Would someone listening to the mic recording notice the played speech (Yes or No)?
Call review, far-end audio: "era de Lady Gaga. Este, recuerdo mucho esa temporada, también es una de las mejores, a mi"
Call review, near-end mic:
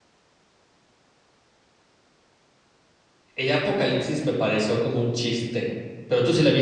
No